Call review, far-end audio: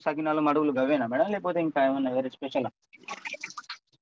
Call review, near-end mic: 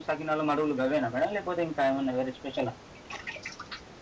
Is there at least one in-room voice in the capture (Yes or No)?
No